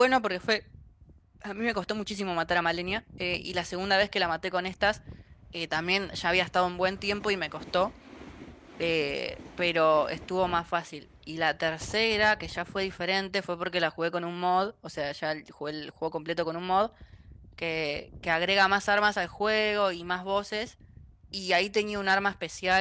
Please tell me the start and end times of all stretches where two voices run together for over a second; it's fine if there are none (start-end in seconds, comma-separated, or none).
none